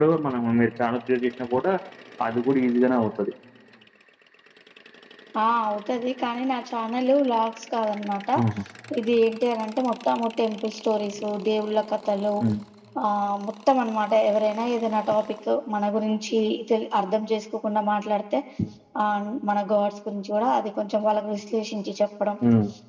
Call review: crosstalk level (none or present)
none